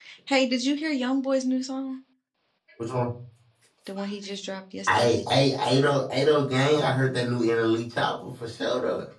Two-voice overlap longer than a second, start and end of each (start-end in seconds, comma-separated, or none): none